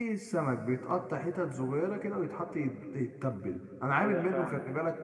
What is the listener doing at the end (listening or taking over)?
listening